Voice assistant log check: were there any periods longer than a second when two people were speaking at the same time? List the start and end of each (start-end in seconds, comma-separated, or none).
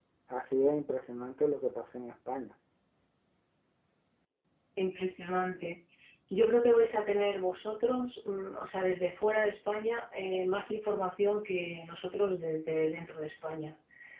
none